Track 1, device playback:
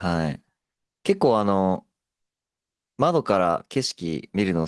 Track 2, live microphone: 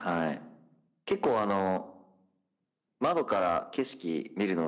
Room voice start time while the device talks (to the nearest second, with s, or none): none